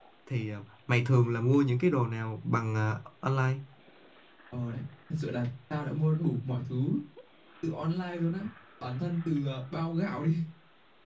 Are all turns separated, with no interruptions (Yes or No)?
Yes